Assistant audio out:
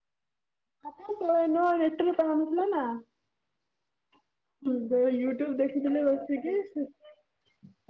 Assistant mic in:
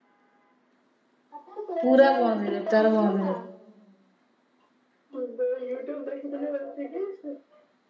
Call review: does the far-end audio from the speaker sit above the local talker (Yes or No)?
No